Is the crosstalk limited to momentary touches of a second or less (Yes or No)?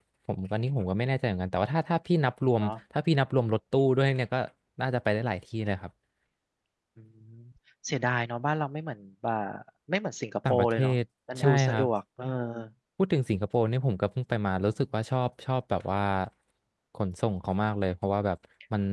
Yes